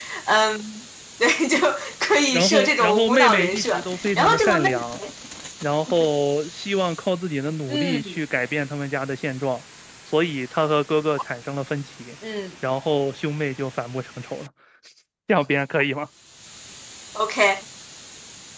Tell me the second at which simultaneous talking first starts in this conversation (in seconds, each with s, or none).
2.3 s